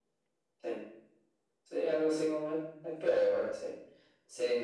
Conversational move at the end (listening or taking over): taking over